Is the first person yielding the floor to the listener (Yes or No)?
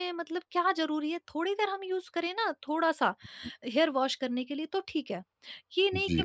No